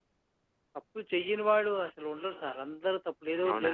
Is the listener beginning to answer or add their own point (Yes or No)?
Yes